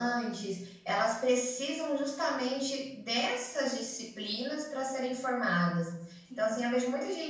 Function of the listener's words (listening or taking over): listening